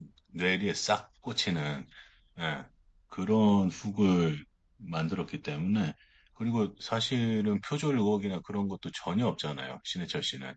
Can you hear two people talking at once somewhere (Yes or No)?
No